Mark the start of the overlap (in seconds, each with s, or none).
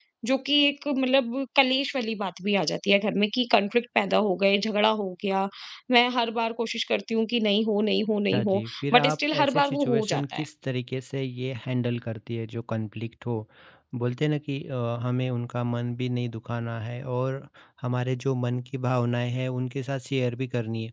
8.3 s